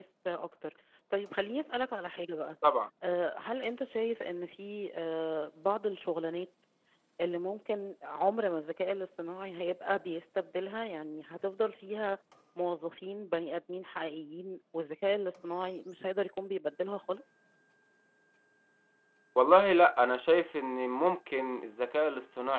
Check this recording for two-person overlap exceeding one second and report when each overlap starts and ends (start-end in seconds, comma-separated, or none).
none